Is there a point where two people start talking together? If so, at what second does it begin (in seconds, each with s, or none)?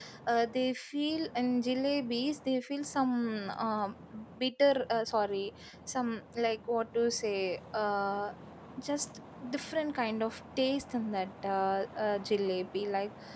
none